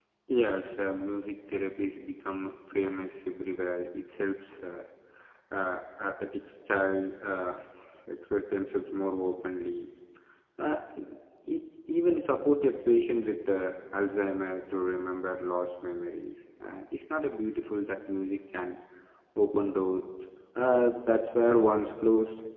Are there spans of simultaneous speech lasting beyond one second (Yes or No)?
No